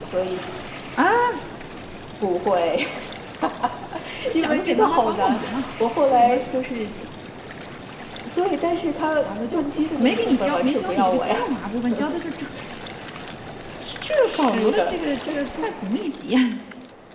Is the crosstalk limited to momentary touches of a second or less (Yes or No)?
No